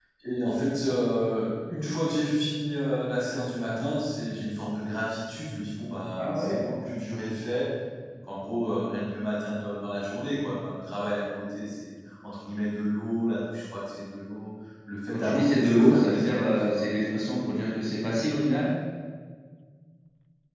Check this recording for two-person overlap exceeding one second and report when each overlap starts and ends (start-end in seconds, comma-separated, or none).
15.1-16.8